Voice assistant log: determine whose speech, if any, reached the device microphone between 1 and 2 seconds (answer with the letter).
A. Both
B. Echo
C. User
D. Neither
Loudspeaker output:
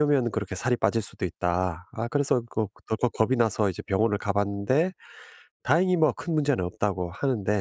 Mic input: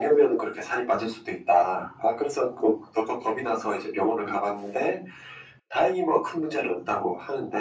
B